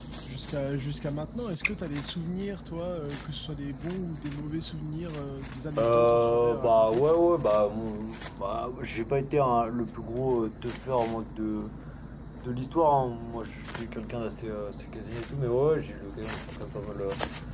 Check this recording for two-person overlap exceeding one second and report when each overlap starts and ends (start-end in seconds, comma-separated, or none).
5.8-7.0